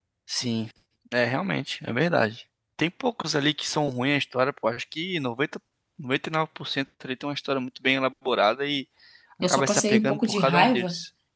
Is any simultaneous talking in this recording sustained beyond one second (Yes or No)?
Yes